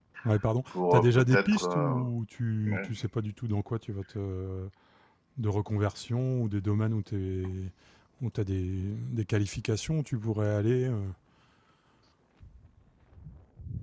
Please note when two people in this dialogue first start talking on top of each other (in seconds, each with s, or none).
0.7 s